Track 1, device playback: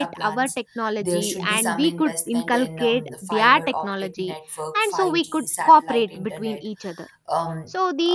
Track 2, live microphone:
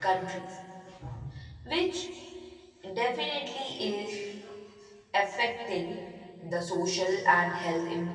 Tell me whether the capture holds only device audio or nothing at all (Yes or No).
No